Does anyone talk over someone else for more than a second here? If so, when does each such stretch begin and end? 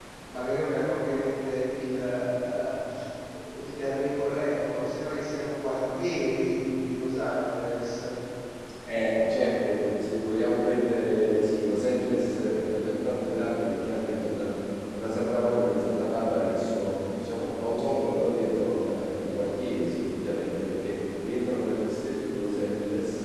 none

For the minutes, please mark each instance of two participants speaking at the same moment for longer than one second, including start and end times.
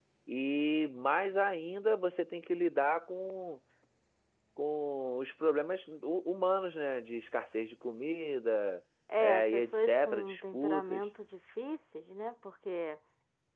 9.2-11.0

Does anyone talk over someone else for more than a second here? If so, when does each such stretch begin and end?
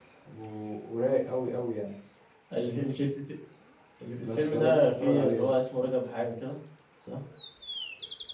4.2-5.6

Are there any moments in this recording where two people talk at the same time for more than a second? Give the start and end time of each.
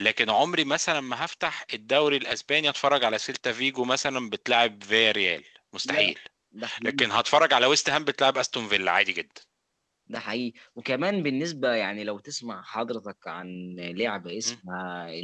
none

